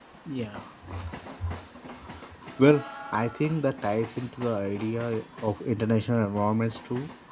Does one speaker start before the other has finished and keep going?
No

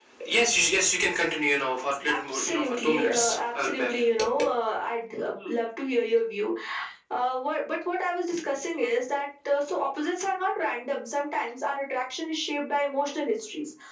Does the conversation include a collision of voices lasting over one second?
Yes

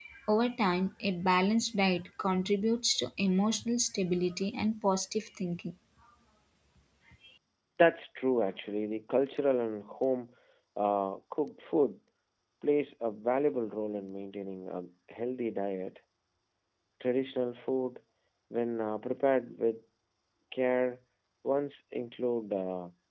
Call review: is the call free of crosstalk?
Yes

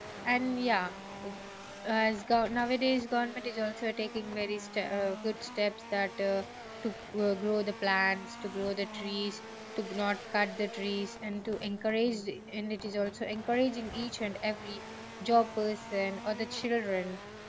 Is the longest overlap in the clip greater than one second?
No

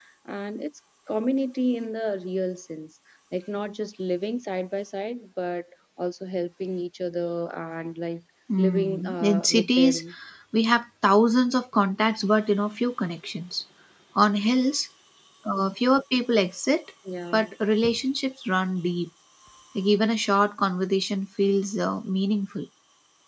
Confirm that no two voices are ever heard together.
No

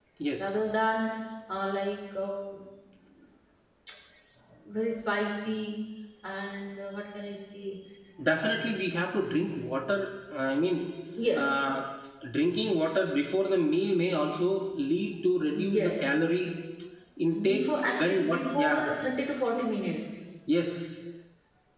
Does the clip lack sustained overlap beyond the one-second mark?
No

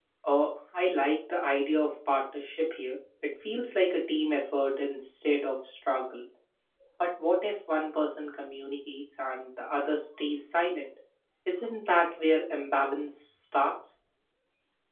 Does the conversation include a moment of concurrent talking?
No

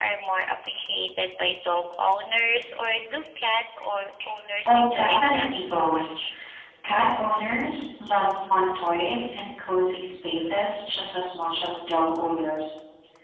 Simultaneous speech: Yes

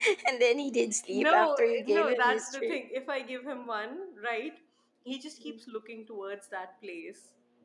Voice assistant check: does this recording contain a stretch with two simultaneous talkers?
Yes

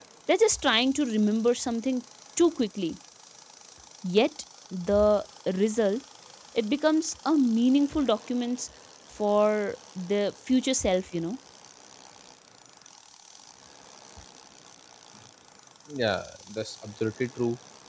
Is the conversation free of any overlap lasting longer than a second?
Yes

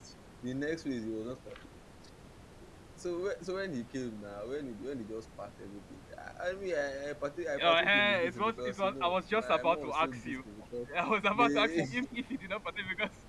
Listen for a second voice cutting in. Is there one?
Yes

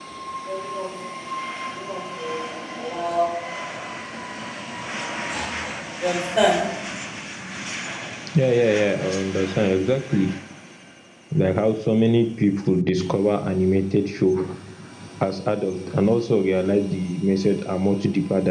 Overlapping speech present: No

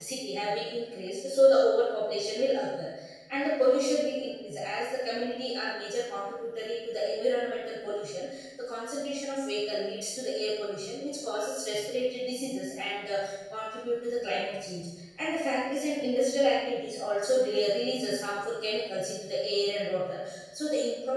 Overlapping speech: No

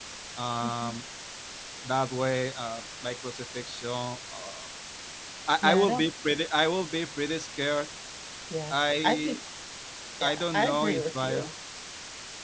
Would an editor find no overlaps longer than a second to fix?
No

